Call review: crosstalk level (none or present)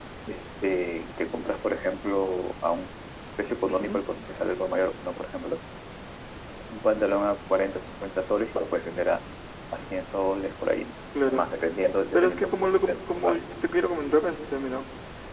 present